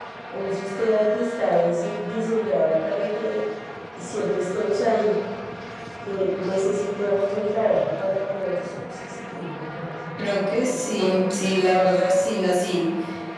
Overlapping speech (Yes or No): Yes